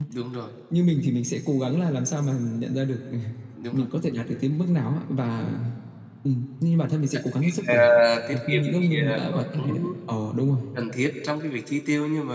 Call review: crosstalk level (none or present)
present